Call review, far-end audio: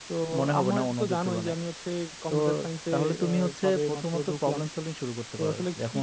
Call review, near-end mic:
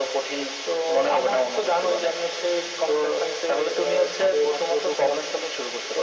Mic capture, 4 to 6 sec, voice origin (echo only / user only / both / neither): echo only